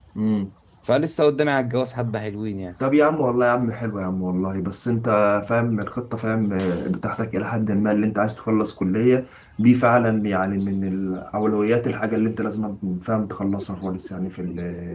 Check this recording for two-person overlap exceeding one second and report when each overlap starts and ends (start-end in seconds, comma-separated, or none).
none